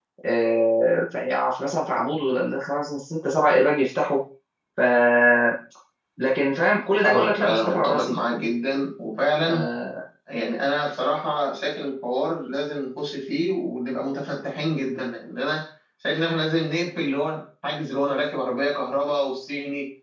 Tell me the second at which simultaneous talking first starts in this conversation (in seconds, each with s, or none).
7.0 s